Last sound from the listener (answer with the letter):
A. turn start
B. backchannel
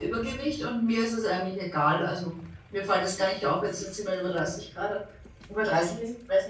B